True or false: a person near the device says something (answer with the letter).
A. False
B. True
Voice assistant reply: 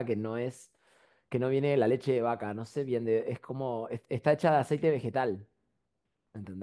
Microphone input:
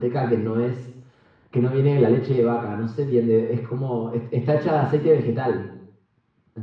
A